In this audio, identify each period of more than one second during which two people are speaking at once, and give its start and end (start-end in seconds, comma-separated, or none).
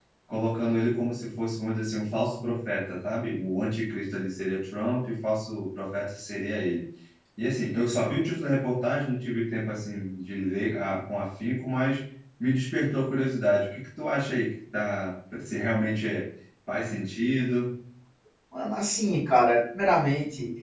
none